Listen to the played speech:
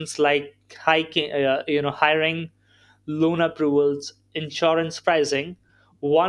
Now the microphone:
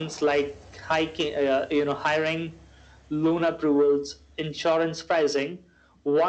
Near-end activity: none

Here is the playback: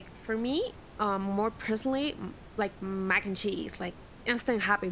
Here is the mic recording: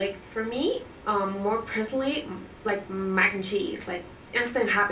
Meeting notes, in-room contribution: none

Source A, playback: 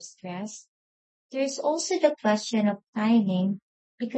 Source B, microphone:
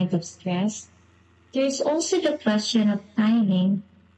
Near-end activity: none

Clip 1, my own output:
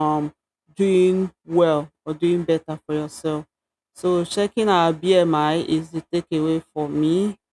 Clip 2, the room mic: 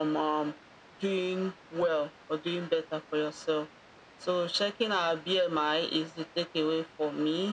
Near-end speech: none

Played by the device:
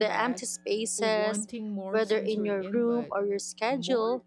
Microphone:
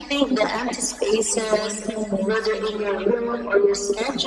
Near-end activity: none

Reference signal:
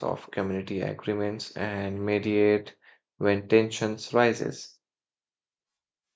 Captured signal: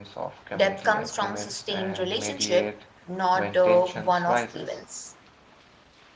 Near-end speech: present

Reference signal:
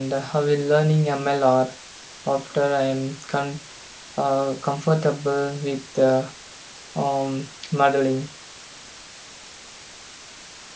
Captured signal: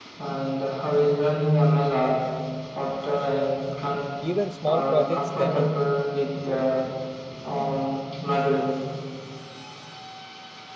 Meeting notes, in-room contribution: present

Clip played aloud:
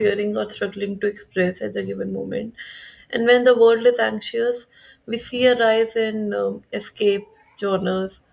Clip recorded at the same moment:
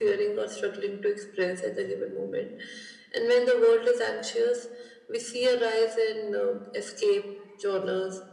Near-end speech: none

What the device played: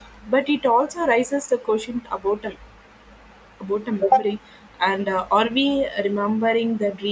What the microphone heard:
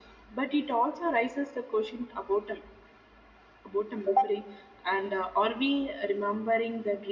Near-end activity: none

